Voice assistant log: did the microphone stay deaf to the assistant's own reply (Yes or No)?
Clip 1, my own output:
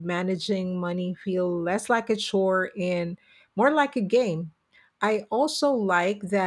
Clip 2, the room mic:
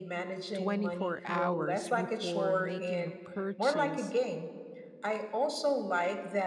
No